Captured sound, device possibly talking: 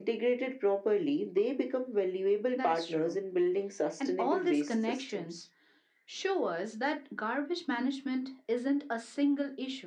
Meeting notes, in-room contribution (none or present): none